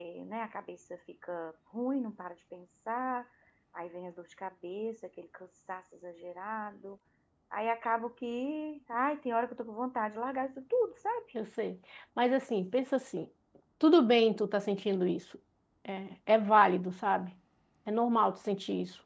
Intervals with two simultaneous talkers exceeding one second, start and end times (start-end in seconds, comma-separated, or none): none